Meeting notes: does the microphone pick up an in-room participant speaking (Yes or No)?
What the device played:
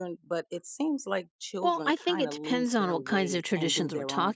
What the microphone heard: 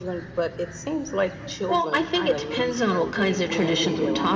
Yes